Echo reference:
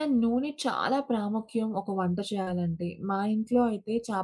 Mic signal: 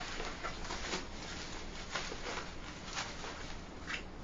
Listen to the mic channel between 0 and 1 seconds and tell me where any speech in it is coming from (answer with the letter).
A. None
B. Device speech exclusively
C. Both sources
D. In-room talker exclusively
A